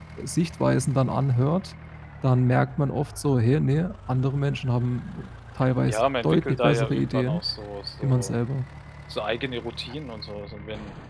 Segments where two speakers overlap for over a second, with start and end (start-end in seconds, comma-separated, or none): 5.9-7.4